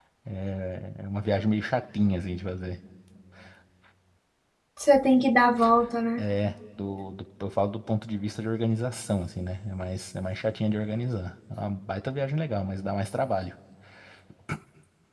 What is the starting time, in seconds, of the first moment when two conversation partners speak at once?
none

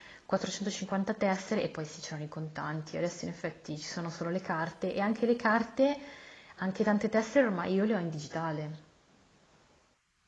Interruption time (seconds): none

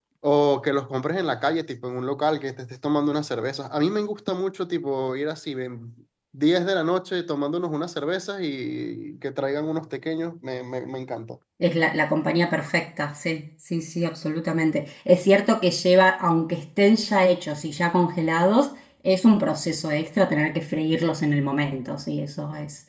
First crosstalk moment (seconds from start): none

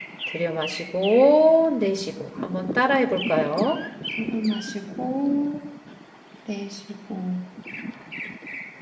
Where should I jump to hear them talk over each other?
none

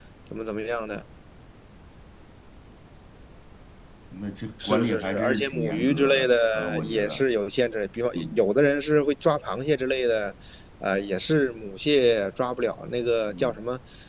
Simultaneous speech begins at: 5 s

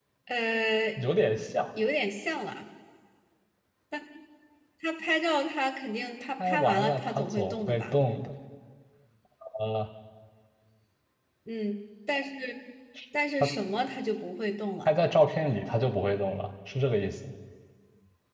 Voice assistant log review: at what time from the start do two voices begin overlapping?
6 s

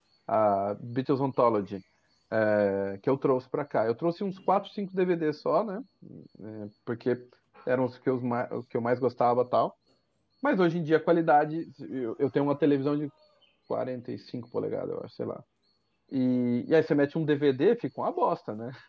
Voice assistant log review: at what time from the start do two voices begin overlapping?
none

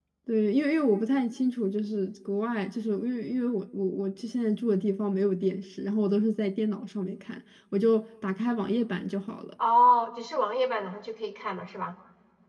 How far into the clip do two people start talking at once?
none

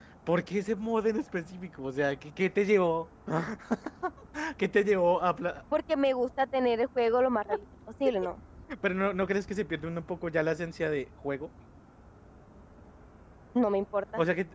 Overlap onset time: none

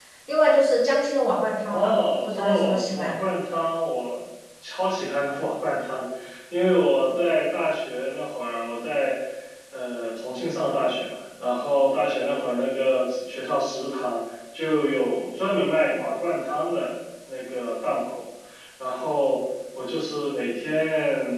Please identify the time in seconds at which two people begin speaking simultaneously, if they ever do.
2 s

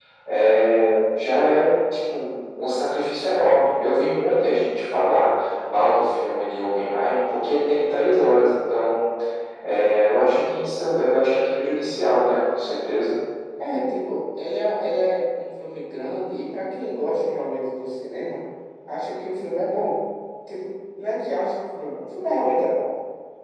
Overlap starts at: none

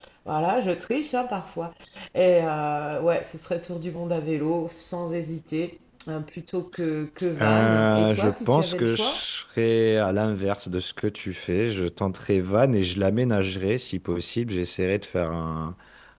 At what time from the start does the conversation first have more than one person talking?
7 s

